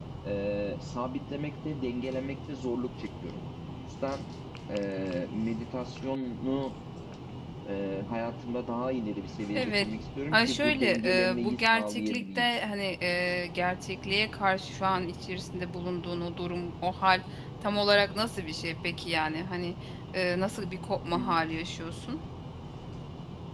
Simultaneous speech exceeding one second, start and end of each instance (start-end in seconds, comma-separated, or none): 10.3-12.5